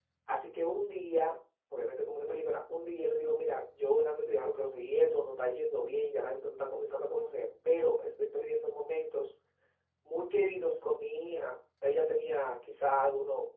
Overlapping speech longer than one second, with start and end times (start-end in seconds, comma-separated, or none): none